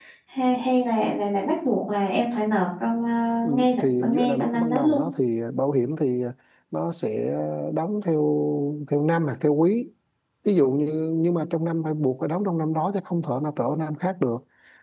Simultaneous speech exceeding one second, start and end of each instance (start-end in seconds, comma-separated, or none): 3.4-5.0